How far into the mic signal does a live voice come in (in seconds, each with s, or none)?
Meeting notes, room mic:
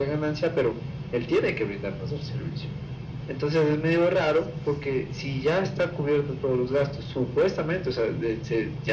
none